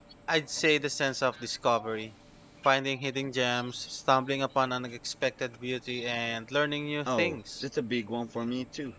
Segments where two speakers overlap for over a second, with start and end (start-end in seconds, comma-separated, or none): none